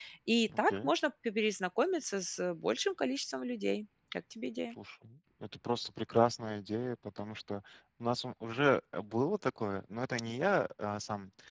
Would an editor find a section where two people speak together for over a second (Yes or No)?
No